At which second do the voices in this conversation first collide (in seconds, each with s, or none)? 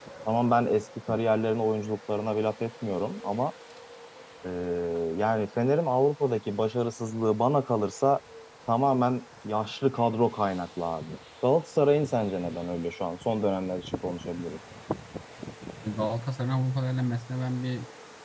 none